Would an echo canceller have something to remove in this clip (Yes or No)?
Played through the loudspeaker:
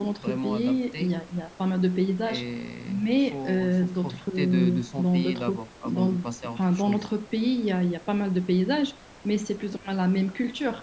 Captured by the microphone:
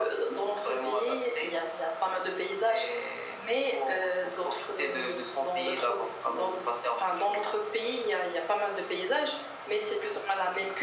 Yes